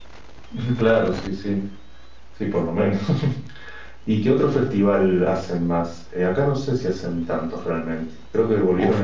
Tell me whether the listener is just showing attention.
No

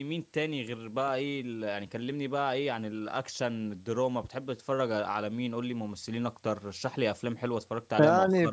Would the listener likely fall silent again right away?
No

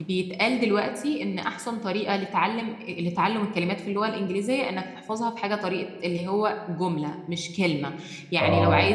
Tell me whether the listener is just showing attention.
Yes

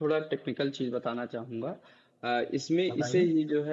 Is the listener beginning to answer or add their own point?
No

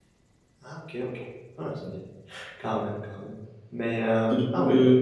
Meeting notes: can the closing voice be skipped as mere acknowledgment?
No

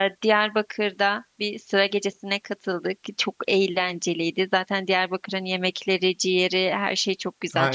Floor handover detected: Yes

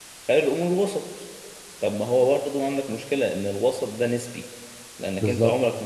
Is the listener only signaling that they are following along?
Yes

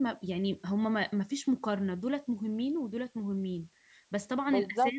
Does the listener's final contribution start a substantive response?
No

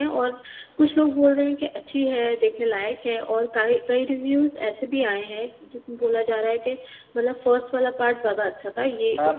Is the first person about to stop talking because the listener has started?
Yes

